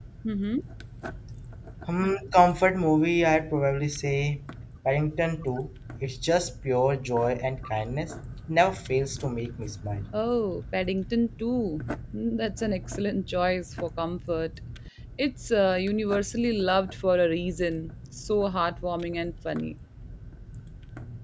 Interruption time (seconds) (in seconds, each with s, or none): none